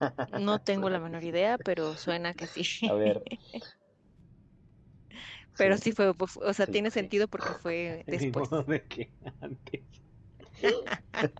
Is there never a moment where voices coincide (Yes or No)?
No